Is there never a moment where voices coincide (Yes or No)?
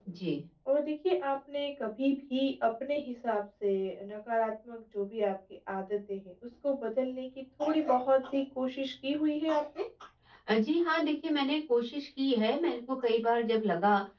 Yes